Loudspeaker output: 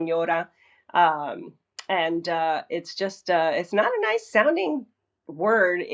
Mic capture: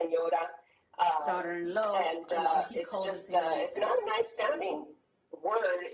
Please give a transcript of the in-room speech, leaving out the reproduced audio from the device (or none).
daughter-in-law, and all- he calls her señorita.